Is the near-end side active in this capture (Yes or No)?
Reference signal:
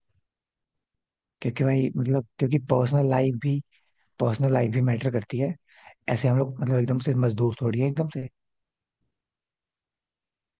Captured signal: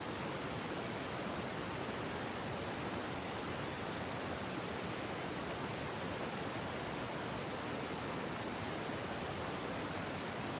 No